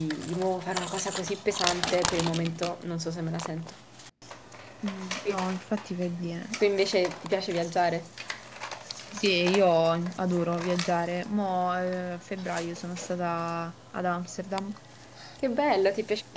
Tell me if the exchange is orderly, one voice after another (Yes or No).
Yes